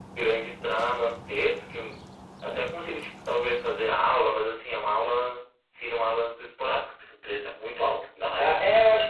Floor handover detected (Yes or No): Yes